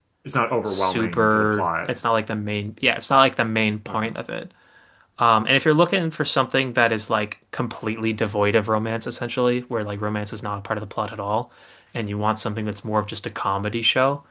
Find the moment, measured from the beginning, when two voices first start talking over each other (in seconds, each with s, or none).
0.7 s